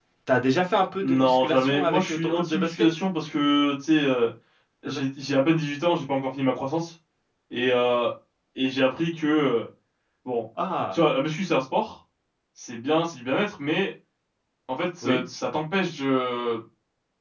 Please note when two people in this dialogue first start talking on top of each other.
1.0 s

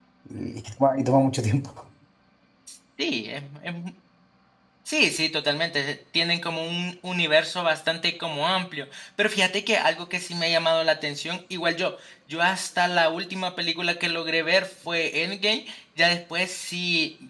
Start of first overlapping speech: none

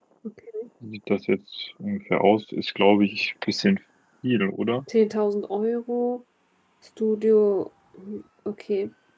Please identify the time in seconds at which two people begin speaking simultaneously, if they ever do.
none

